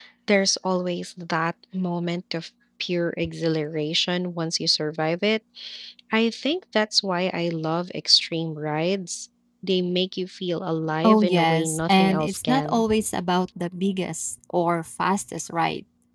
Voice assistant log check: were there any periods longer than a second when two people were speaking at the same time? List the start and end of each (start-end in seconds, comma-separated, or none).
11.0-12.8